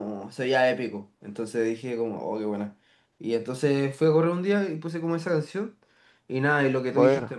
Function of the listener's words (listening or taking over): listening